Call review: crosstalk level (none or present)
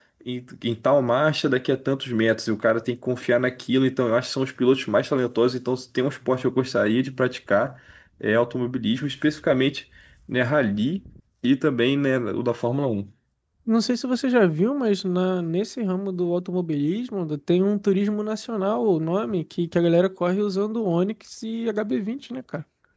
none